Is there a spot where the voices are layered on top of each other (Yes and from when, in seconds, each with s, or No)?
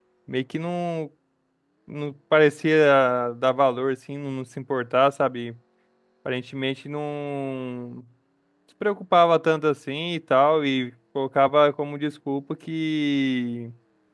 No